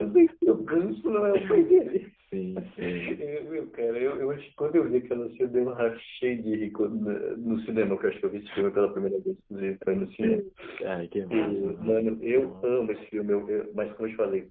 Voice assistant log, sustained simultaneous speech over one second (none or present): present